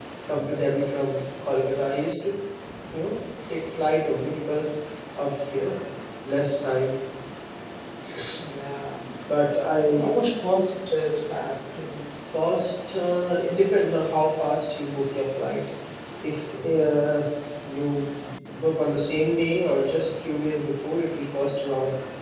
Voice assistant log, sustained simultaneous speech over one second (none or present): none